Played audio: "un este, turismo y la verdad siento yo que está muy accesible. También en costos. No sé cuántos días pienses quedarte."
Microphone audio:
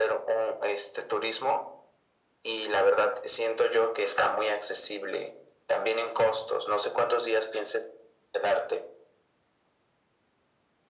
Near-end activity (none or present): none